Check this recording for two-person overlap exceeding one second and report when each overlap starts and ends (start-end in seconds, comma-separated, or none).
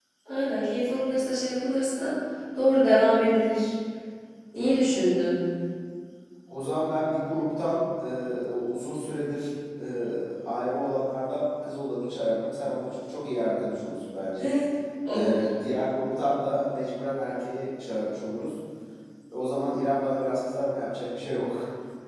none